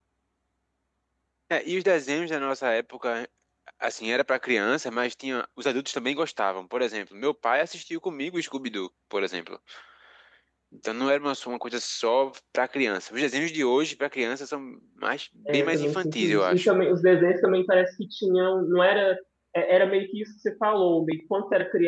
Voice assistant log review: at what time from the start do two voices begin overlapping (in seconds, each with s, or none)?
15.4 s